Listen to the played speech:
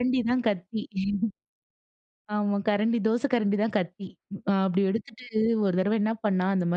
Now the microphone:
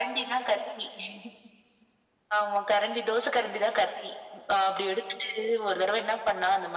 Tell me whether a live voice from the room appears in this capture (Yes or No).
No